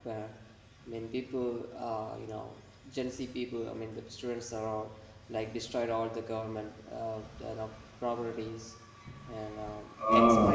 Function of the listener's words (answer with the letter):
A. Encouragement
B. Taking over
B